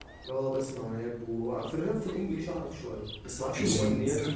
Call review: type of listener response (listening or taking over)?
listening